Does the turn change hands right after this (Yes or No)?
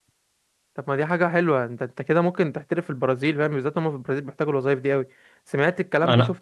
Yes